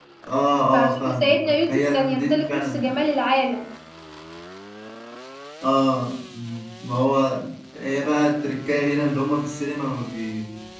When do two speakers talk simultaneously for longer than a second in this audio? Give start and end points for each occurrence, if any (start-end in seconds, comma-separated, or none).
0.7-2.9